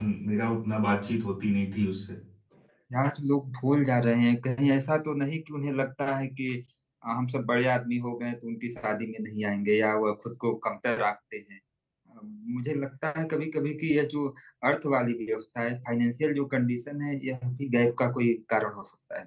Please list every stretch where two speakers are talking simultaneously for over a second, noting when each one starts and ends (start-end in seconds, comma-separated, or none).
none